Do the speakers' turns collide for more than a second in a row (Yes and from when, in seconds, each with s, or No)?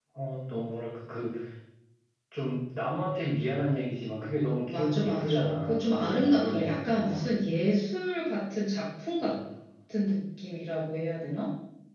Yes, from 4.7 s